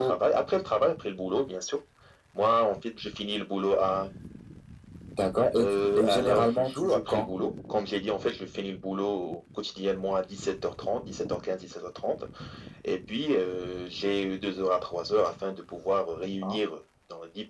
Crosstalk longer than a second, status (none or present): present